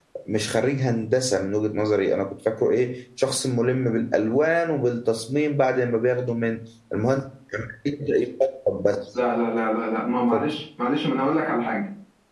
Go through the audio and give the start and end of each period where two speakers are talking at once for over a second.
none

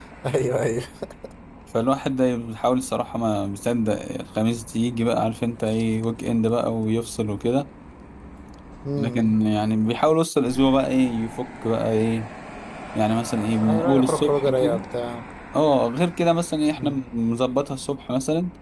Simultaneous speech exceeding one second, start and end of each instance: 13.6-14.8

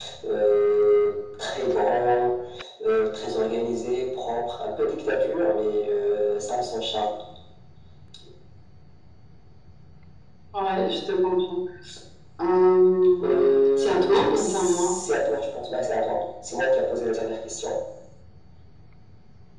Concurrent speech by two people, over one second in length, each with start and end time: 13.2-15.0

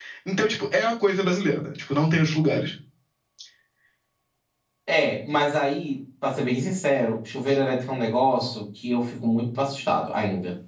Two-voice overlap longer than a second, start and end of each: none

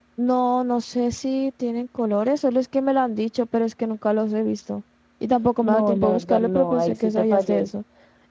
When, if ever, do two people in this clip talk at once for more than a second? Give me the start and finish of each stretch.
5.6-7.7

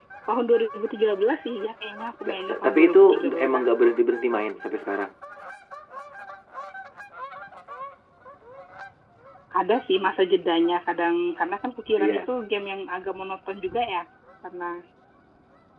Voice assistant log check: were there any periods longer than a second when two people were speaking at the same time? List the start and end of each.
2.3-3.6

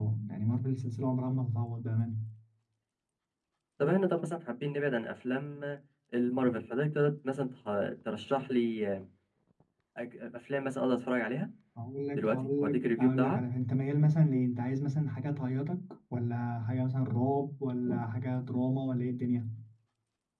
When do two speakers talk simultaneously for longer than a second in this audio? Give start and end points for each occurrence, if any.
12.2-13.4

